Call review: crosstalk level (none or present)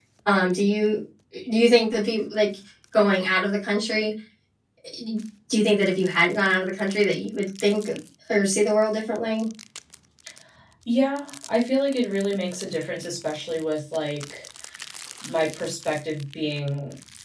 none